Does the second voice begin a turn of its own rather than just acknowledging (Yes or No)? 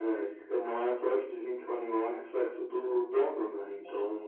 No